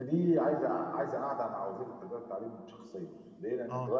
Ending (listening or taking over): listening